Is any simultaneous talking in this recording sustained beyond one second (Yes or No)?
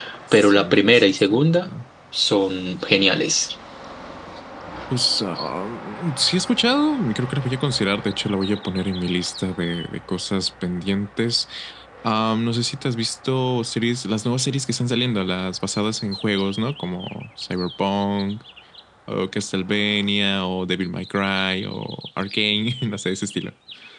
Yes